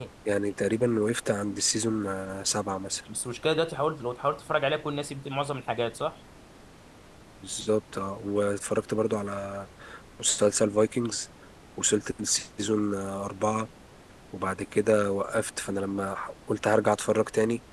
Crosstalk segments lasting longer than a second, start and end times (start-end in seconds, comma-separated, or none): none